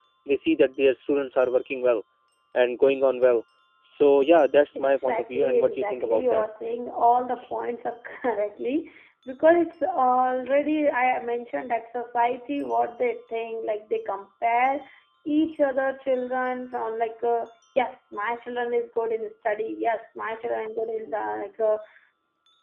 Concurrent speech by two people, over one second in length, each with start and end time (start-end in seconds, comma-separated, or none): 4.8-6.4